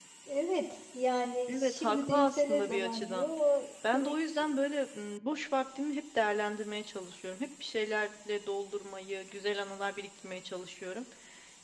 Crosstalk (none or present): present